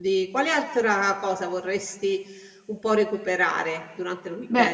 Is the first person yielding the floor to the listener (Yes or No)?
Yes